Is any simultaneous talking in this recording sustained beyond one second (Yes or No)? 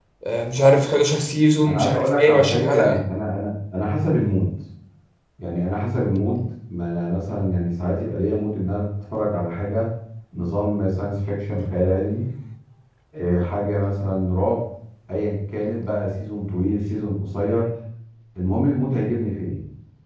Yes